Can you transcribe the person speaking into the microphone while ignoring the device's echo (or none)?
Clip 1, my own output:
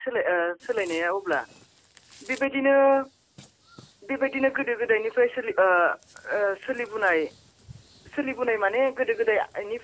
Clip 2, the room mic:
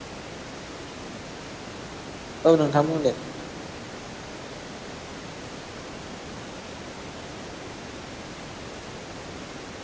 औ नोंथां बुंदो